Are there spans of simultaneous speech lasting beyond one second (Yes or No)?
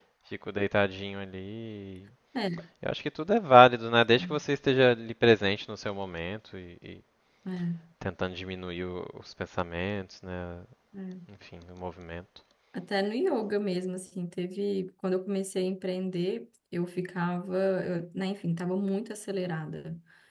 No